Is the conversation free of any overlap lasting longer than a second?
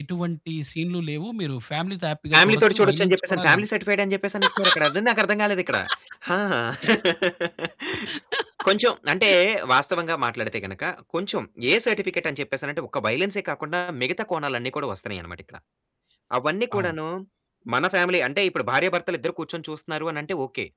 No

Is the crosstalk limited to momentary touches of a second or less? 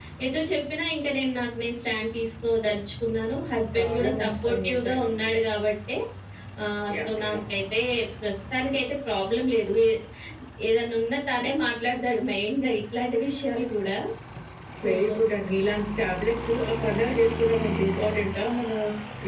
No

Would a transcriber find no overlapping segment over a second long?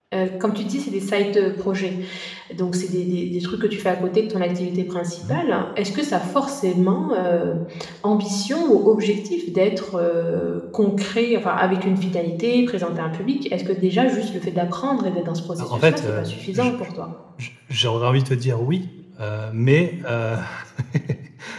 No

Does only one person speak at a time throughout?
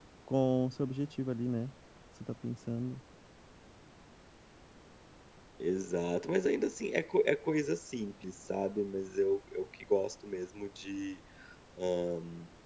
Yes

